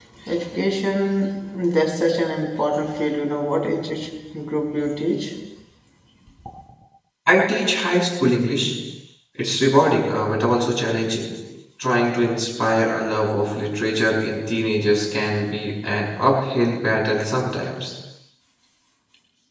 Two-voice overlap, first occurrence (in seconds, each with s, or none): none